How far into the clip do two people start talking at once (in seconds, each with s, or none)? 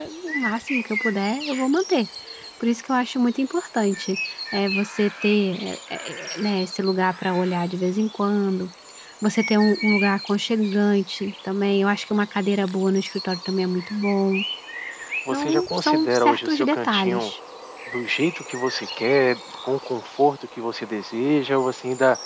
15.3 s